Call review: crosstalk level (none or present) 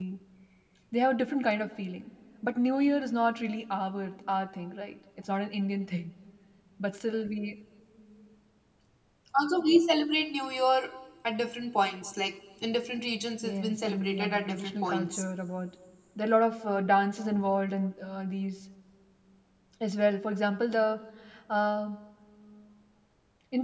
present